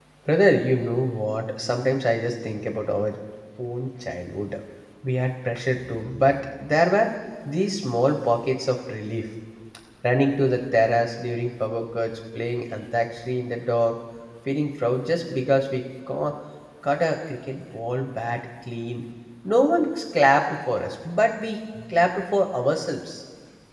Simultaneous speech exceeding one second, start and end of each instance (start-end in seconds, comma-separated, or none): none